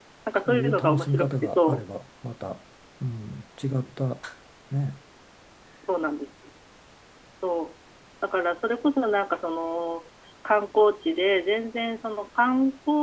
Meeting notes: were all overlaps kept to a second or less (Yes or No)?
No